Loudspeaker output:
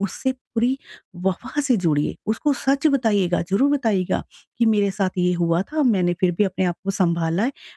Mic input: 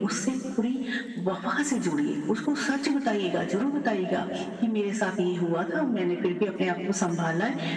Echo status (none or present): present